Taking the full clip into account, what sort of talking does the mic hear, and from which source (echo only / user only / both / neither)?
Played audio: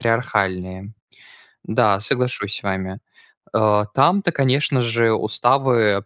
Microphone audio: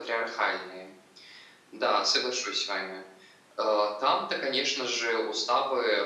echo only